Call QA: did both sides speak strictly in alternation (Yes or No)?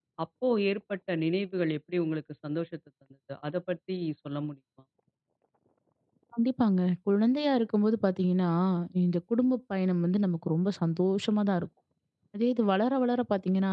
Yes